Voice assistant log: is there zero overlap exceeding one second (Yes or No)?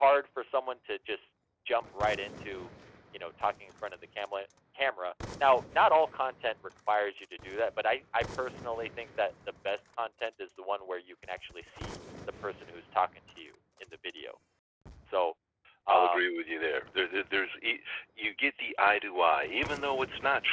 Yes